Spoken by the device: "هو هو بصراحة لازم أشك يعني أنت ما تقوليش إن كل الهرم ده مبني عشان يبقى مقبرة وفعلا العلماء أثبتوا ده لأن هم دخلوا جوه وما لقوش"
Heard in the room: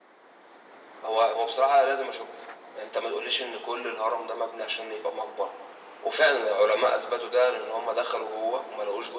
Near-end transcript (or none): none